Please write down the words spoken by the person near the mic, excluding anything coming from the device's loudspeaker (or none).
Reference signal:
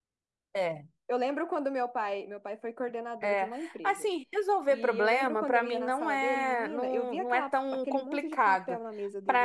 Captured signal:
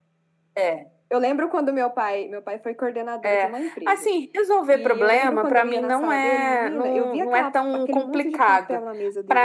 none